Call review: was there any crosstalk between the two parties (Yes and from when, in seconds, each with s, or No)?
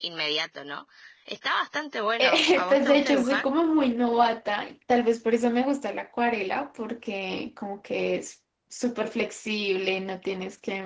Yes, from 2.2 s